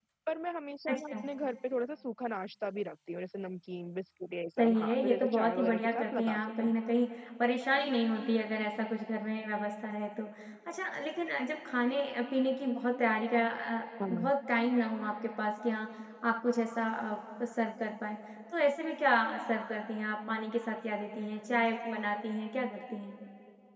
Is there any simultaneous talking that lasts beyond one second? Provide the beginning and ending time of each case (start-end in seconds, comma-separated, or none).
4.6-6.8